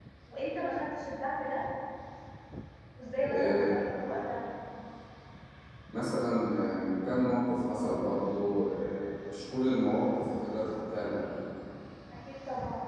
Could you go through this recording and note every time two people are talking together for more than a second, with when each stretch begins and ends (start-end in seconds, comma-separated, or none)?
none